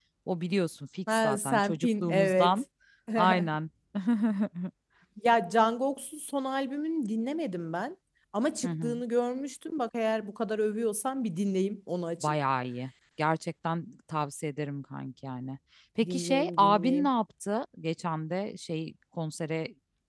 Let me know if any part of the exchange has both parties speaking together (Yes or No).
Yes